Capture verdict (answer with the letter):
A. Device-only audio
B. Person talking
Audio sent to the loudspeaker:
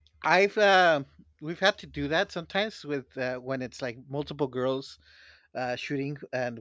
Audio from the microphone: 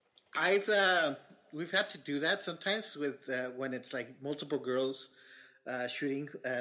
A